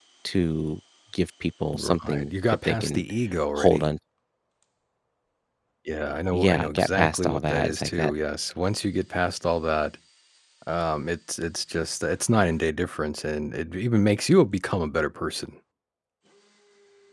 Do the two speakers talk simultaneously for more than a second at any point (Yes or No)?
Yes